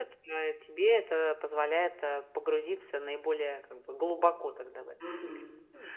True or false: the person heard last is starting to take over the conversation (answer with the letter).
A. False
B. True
B